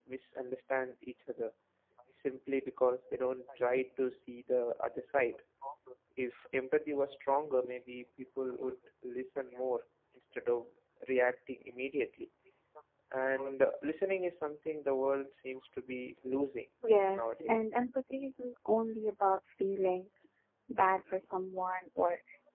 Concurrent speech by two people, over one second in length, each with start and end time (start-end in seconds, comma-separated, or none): none